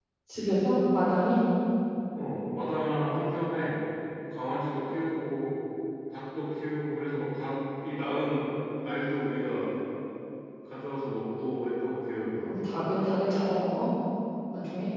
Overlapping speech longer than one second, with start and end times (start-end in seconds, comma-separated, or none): none